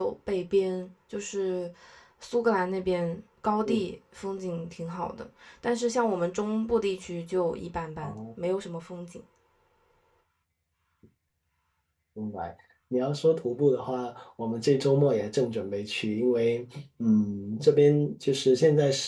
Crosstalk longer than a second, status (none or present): none